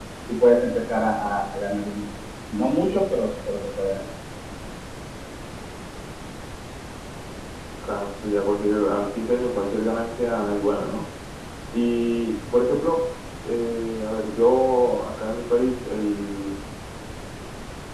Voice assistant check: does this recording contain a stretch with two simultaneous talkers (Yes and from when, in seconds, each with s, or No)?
No